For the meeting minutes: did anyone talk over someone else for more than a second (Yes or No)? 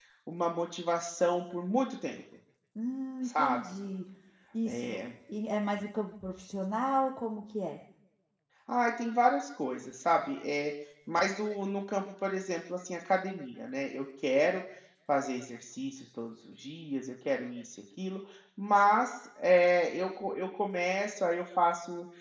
No